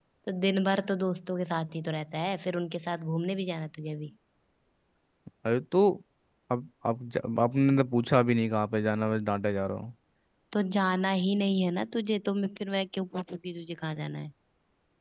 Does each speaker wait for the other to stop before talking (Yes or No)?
Yes